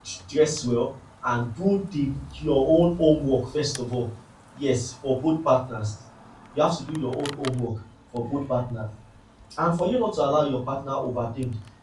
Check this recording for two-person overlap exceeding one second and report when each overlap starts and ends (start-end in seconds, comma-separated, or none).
none